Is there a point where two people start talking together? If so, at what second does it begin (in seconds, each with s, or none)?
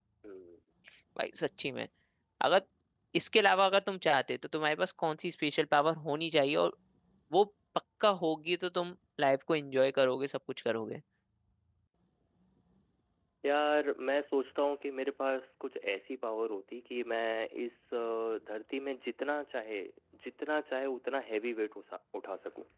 none